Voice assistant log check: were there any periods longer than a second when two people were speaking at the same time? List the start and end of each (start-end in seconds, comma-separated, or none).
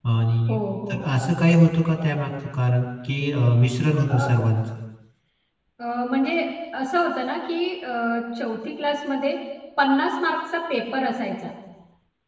none